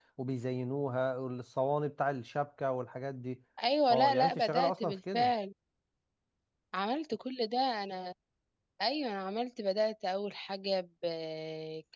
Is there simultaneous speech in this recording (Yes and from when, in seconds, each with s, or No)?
Yes, from 3.9 s